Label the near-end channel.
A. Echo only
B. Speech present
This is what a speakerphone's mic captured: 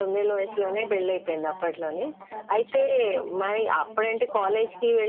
B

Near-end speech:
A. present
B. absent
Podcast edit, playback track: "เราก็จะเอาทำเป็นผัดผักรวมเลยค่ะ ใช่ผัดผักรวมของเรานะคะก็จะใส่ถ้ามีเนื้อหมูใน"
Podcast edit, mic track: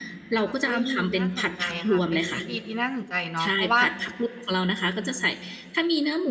A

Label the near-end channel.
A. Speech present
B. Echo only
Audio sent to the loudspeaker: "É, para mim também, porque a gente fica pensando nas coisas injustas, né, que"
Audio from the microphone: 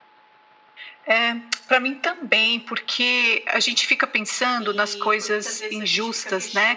A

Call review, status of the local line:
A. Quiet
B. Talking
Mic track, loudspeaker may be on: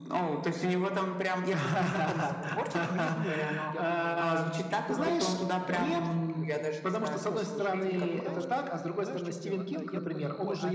B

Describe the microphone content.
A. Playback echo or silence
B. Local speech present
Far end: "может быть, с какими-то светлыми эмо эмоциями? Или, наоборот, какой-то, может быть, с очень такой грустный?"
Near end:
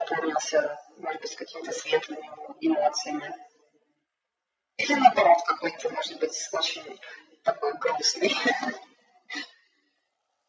A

